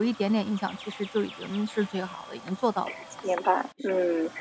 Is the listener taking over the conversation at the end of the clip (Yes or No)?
Yes